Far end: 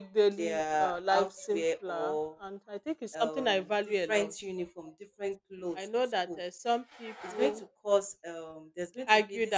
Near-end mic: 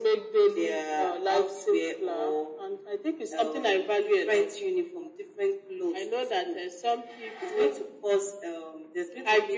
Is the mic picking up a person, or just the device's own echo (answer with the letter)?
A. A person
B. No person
B